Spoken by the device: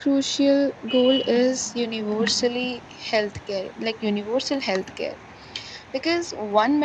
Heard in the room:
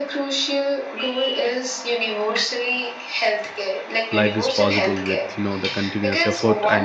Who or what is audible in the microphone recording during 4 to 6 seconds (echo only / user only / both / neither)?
both